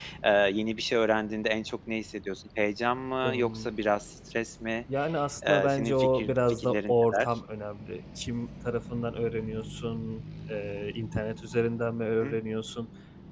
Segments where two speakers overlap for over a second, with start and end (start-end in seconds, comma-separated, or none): 5.5-7.3